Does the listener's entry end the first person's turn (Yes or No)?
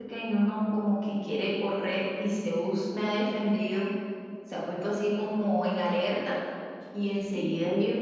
No